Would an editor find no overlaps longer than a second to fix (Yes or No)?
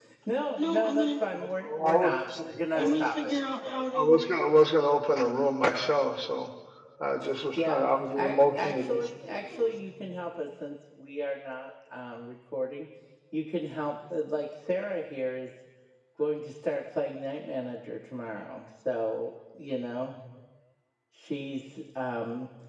No